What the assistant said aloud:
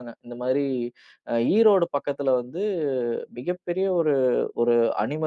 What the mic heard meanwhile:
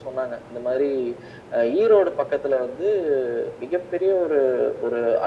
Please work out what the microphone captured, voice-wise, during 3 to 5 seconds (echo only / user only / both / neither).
echo only